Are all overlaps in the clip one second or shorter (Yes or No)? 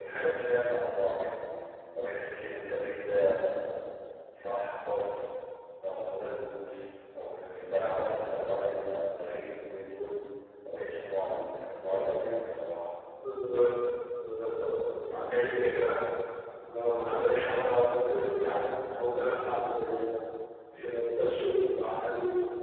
Yes